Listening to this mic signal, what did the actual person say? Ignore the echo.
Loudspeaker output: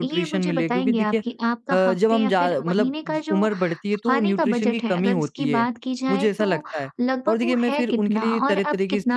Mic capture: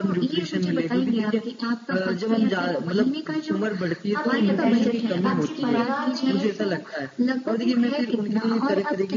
आप ये बताइए कि आपके परिवार में

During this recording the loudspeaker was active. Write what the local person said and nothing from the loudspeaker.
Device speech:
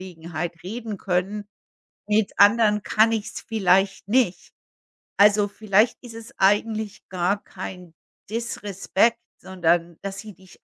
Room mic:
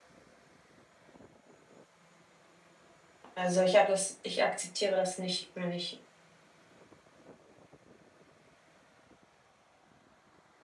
Also, ich habe das ich akzeptiere das nicht, wenn ich

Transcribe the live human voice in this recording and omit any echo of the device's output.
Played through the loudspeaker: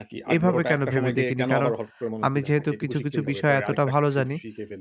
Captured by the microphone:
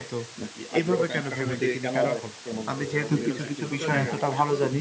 সো ওরা যদি হয়তো ১ টা ২ টা জায়গায় থাকে। এখন

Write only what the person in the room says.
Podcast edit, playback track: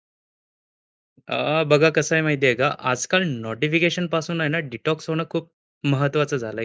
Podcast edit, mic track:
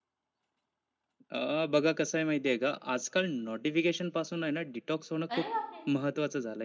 अरे बापरे!

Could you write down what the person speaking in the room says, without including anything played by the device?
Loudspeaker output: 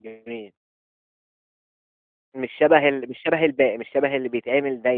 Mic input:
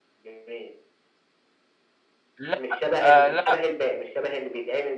لأ، آه لأ،

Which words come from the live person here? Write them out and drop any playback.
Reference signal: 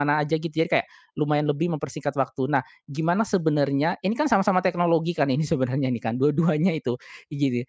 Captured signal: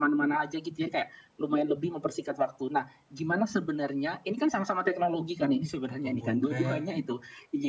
ataupun Grab.

